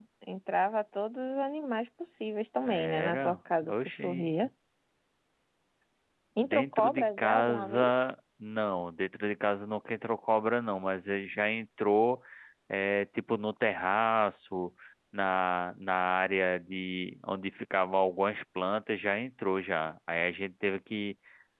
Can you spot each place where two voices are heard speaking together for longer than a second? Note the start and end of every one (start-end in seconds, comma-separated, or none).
2.6-4.3, 6.4-7.9